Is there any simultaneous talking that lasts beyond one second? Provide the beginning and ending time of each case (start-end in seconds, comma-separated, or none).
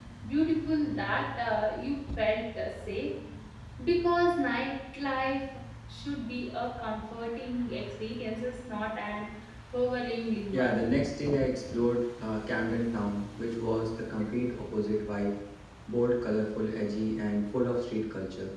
none